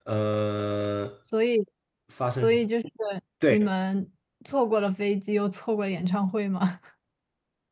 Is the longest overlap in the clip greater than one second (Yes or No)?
No